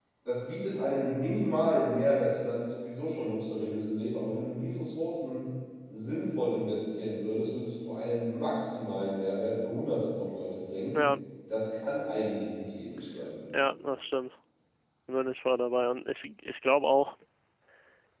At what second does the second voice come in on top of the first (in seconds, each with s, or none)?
none